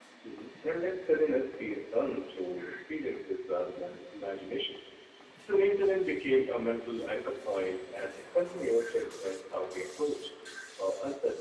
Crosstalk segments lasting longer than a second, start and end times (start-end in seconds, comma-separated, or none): none